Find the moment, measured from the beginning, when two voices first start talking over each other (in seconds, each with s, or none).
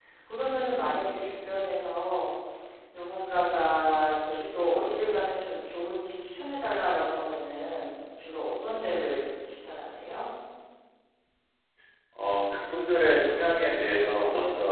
none